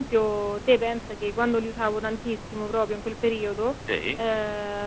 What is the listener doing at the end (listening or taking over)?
listening